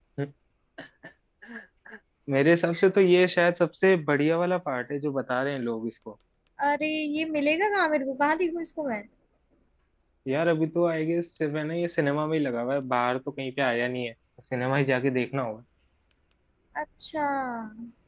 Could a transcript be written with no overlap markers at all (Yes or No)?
Yes